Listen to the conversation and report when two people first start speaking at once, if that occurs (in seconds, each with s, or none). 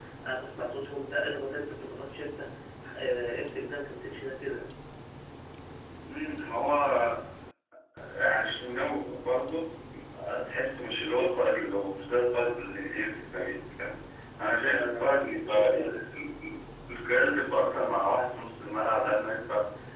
14.5 s